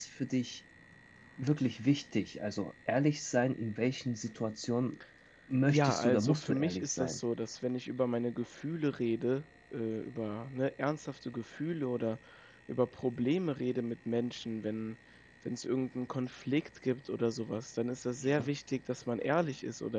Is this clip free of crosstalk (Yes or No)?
No